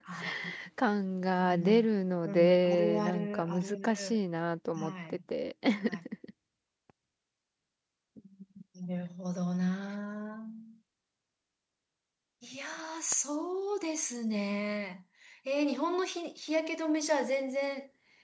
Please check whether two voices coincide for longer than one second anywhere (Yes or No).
Yes